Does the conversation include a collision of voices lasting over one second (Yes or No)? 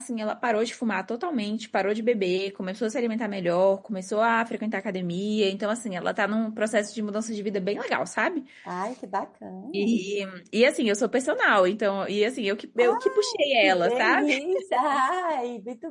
Yes